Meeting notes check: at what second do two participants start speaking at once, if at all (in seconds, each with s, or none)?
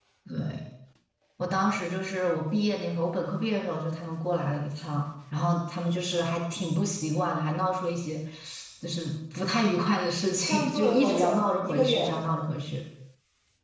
10.5 s